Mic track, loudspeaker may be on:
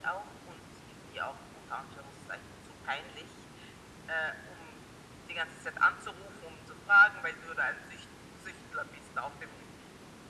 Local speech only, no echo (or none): none